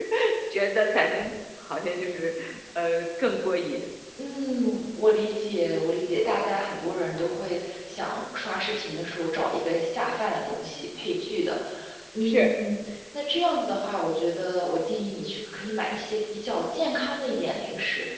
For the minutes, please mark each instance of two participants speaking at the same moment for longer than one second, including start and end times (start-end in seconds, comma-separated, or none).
none